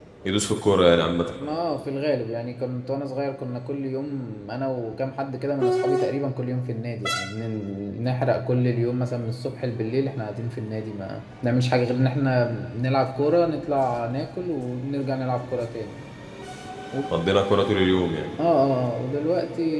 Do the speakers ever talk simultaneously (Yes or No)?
No